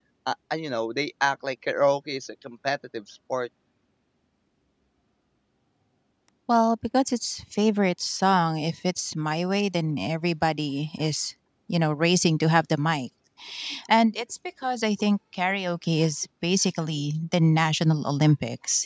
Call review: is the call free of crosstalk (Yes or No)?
Yes